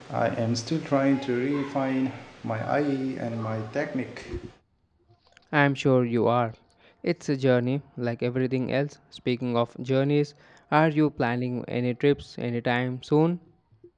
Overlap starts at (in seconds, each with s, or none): none